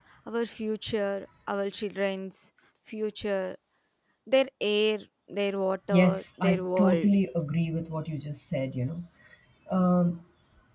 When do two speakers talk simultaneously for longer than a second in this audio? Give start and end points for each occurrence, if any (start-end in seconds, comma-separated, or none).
5.9-7.1